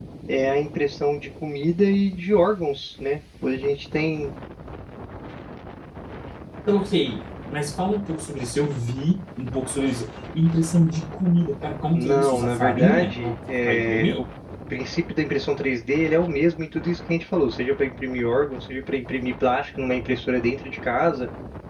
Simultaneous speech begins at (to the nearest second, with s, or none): 12 s